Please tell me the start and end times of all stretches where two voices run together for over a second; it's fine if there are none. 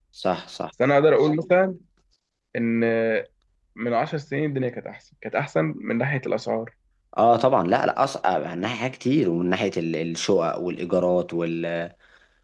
none

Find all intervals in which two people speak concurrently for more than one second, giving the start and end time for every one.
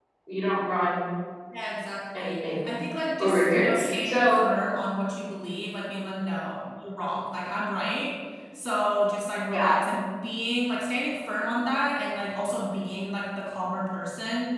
3.2-4.4

